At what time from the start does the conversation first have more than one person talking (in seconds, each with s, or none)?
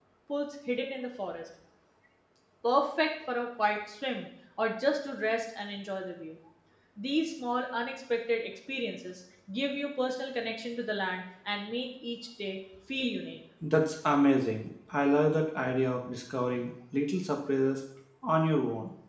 none